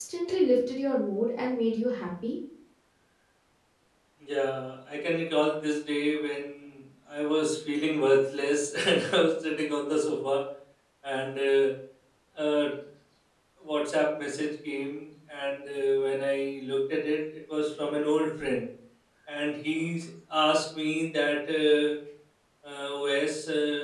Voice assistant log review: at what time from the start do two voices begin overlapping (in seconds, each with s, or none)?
none